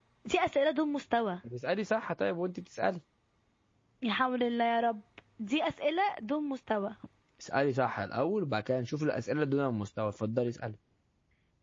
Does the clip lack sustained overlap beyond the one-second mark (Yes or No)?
Yes